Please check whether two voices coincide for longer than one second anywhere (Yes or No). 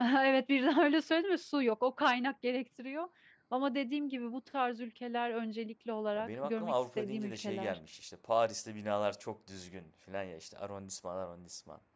Yes